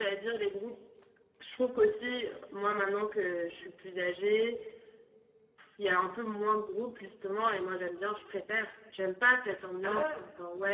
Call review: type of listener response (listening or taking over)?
listening